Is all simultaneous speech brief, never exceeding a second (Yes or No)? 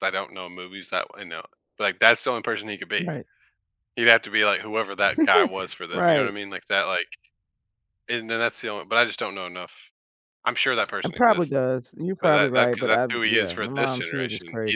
No